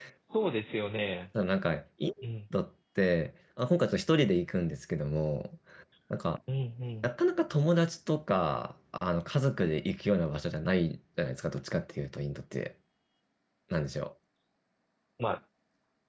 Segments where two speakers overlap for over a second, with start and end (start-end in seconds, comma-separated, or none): none